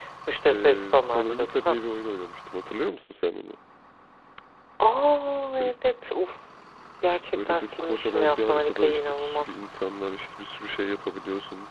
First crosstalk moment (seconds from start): 0.5 s

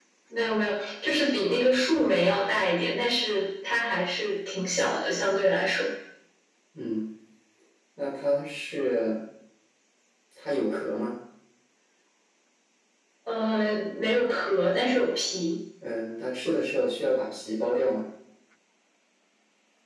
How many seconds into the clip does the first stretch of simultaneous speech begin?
none

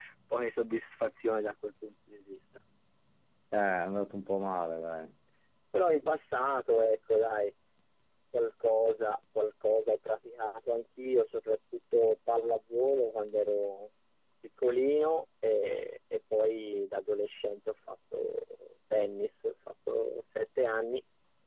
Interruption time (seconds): none

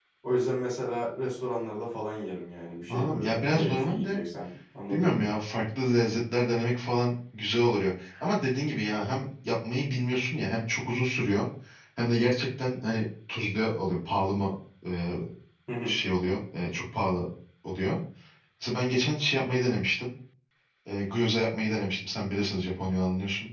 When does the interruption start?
2.9 s

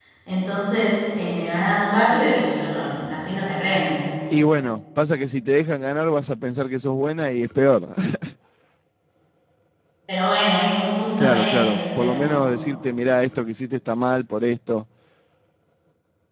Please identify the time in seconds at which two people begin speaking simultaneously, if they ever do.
11.2 s

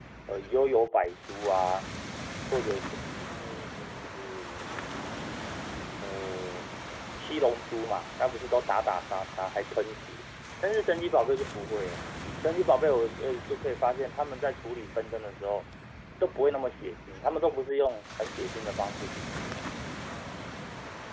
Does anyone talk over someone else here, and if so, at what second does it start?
none

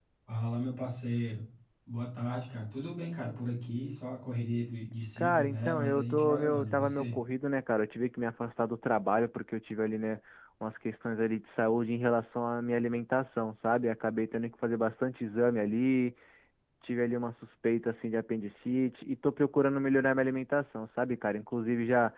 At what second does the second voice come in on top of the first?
5.2 s

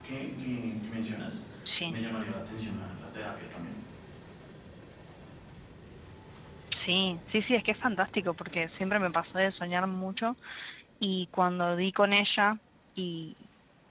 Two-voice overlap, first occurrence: none

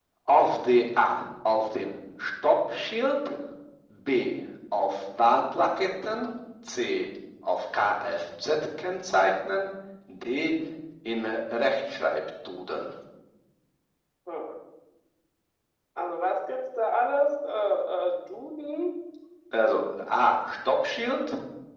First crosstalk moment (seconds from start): none

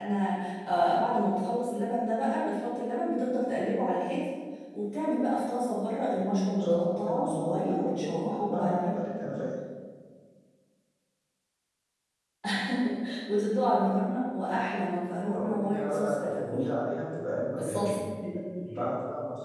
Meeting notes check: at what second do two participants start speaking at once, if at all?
6.3 s

